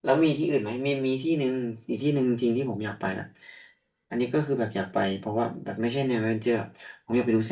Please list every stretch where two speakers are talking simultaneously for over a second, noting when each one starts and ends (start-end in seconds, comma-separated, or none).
none